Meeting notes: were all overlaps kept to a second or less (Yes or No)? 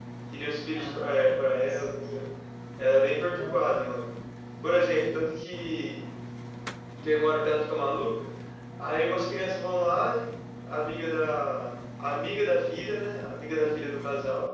No